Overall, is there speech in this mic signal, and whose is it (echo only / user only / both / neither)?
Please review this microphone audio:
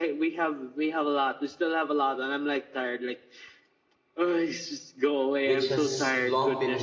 both